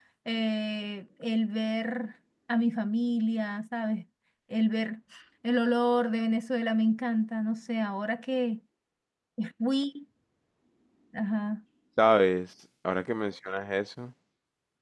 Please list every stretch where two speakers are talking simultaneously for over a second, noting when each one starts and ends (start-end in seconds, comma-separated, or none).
none